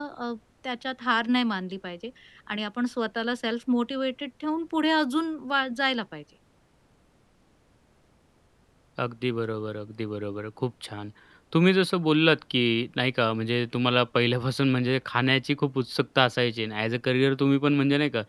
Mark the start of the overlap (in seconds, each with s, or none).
none